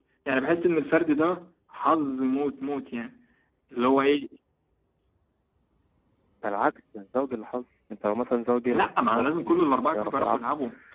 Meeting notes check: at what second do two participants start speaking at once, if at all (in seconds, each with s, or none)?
8.7 s